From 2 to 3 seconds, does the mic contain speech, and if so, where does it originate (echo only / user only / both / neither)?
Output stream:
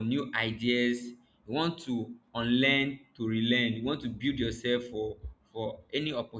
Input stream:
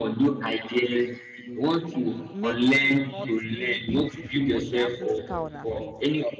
both